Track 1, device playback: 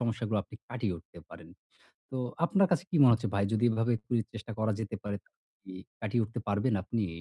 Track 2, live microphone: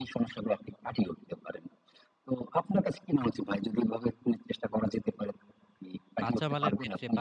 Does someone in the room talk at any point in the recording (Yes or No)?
Yes